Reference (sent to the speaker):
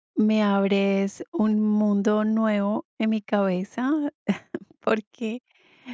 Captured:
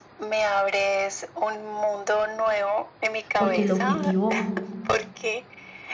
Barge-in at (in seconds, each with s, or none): 3.4 s